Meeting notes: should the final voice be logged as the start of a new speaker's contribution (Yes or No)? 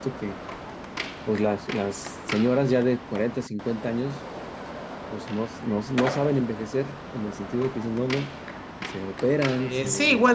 Yes